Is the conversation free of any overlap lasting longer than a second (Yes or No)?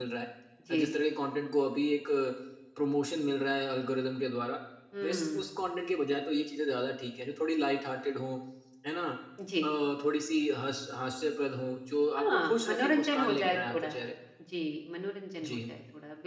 No